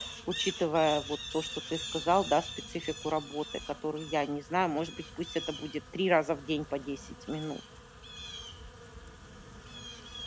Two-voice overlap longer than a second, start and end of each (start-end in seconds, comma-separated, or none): none